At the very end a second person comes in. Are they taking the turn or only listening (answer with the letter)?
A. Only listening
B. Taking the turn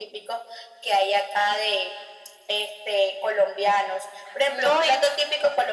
A